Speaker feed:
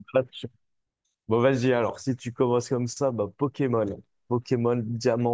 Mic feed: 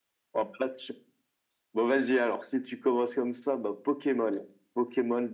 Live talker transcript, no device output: none

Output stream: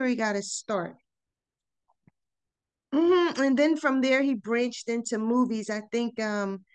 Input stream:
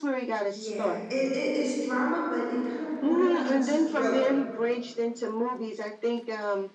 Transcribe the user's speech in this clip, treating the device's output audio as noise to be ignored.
yeah, it, it is drama, but it kind of borderlines thriller.

